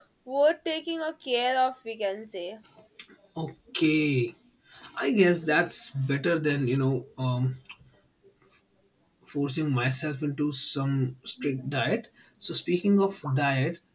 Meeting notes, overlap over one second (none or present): none